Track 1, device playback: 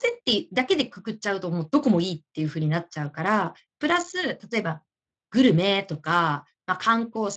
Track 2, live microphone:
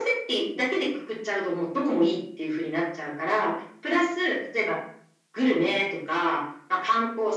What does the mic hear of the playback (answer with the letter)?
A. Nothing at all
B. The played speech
B